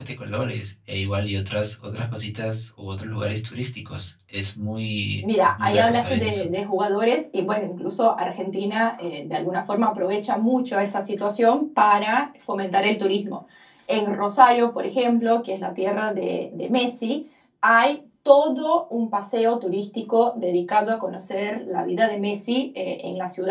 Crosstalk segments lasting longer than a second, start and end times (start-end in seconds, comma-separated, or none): 5.2-6.5